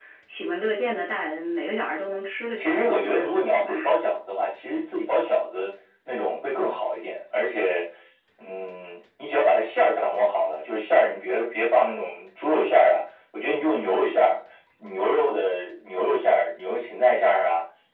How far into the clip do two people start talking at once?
2.6 s

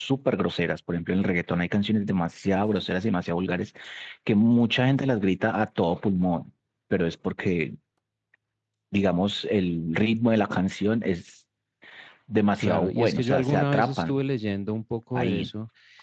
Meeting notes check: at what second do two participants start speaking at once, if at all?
12.6 s

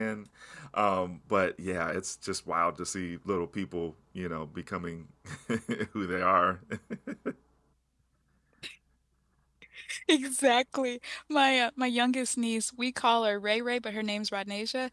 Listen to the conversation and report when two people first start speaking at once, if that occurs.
none

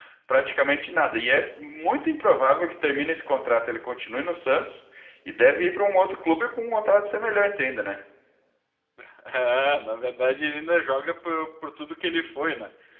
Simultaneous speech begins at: none

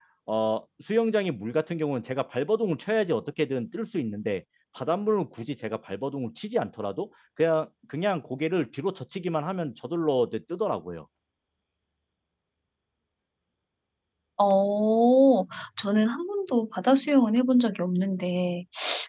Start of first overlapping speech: none

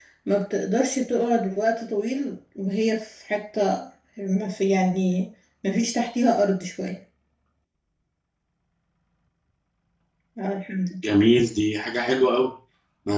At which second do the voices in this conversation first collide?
none

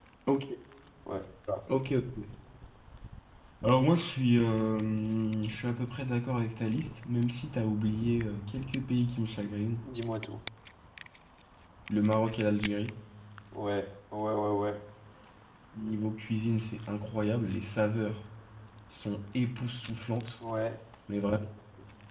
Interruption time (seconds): none

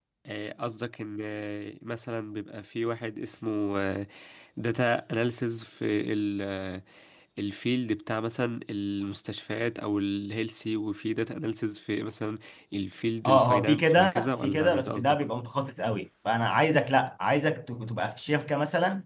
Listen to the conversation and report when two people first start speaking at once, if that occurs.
13.2 s

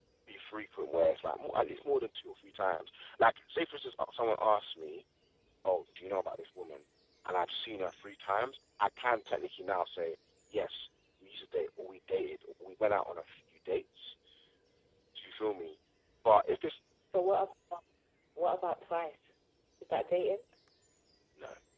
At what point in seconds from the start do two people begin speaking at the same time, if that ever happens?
none

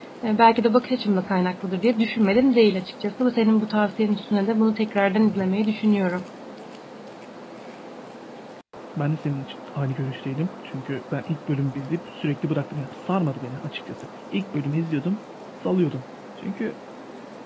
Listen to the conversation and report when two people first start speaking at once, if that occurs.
none

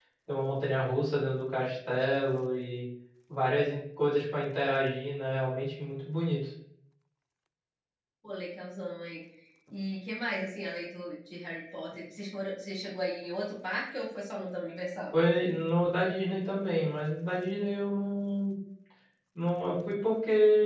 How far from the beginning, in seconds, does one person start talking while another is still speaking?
none

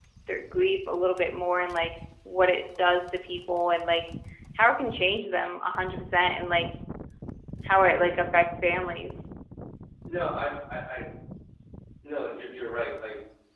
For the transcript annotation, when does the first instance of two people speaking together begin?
none

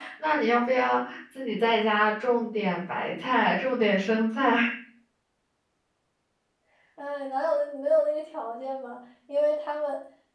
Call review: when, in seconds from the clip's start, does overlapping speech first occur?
none

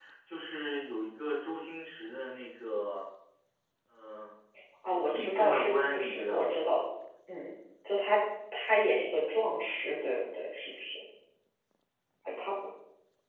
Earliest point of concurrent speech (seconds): 4.8 s

